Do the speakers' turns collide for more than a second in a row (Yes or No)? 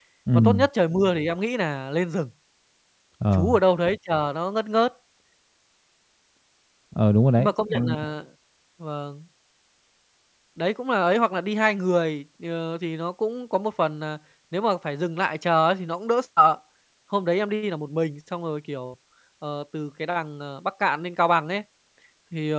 No